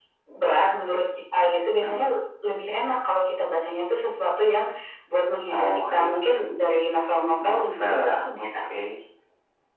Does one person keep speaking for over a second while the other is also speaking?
Yes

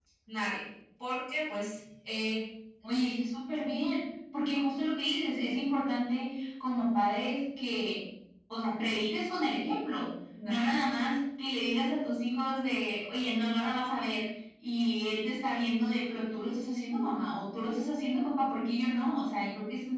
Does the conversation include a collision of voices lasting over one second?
No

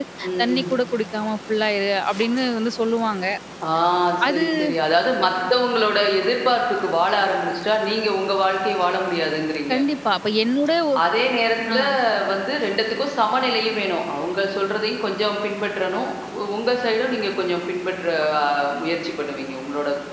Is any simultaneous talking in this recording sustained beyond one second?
No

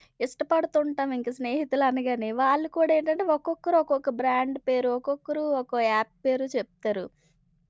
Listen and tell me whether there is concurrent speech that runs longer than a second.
No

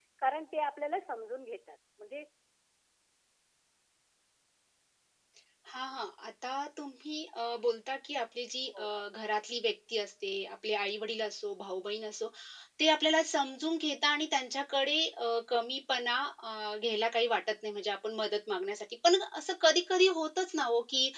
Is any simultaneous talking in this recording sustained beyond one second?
No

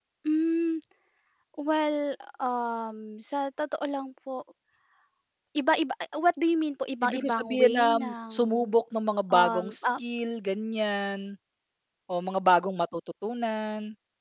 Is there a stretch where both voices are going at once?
Yes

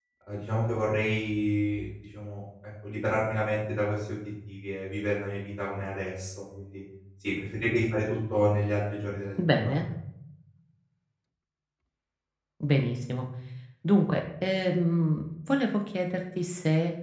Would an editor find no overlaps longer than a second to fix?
Yes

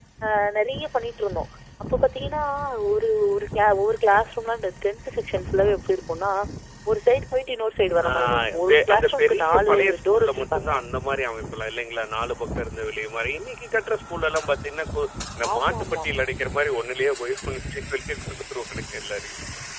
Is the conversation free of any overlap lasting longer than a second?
No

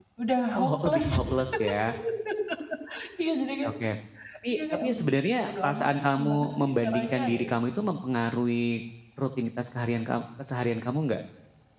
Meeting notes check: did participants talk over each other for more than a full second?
Yes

